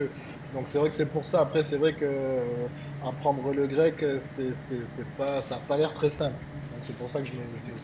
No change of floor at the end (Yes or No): No